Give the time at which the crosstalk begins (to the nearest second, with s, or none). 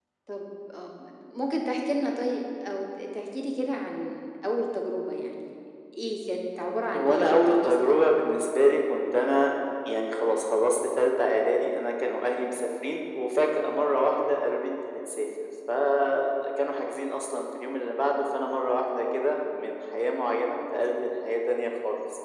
7 s